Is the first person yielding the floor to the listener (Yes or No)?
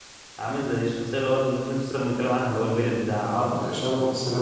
Yes